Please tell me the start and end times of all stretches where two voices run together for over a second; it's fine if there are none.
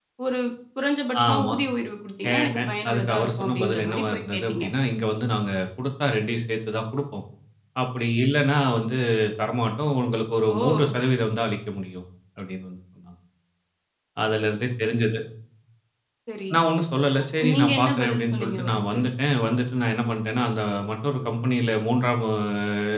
2.3-4.6, 17.4-19.0

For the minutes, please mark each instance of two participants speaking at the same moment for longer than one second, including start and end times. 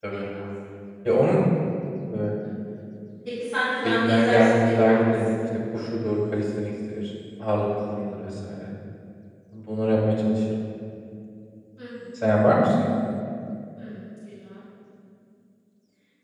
3.8-5.3

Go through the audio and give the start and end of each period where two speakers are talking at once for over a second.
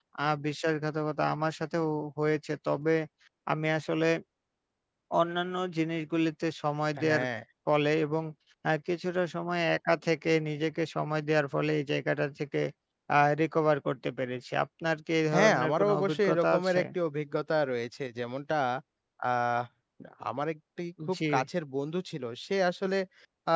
15.3-16.8

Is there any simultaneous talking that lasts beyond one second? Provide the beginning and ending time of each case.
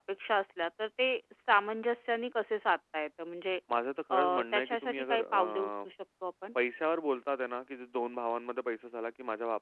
4.1-5.9

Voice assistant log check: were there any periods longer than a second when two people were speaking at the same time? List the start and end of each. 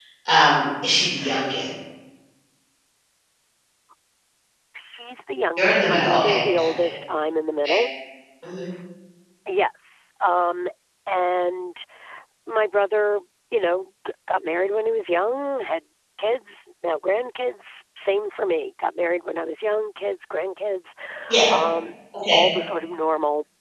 5.6-6.9

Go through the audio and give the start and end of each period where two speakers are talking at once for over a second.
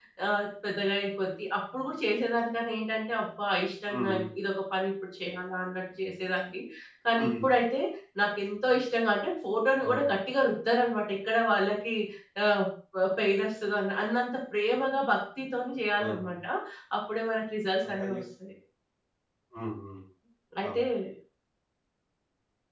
none

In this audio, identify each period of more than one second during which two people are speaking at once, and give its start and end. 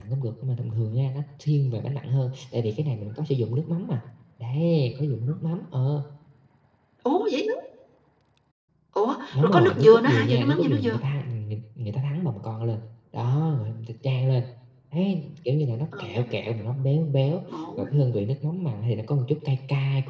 9.3-11.0

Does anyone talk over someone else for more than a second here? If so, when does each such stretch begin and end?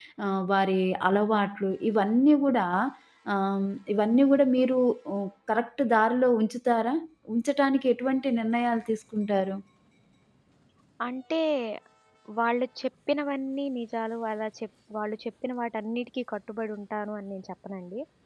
none

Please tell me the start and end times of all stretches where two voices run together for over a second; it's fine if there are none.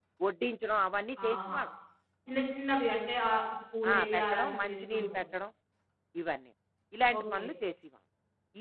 3.9-5.2

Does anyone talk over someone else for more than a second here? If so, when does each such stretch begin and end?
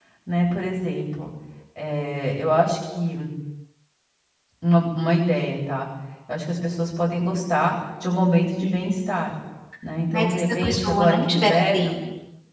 10.1-11.9

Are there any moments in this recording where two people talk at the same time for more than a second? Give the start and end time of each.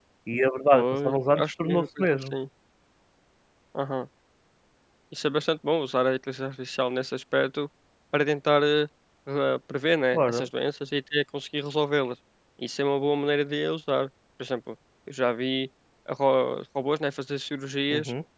0.7-2.4

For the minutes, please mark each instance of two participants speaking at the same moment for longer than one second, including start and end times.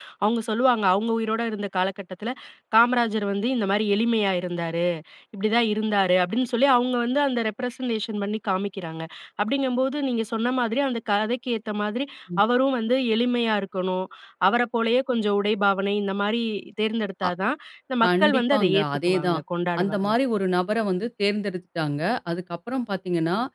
18.1-19.4

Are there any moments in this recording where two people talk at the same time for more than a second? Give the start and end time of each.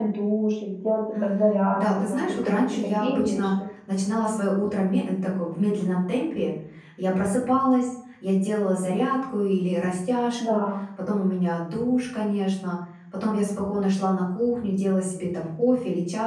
1.2-3.5

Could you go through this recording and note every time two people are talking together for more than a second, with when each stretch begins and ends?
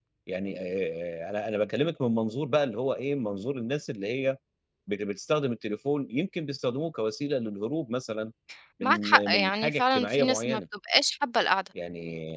8.8-10.6

